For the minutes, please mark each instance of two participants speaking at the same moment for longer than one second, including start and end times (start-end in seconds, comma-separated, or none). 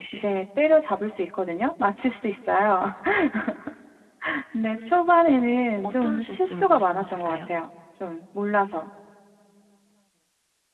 5.8-7.4